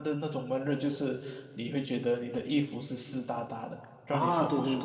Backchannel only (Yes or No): No